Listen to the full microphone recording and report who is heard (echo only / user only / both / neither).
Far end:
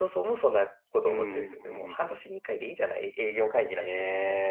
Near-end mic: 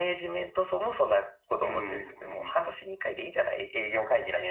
echo only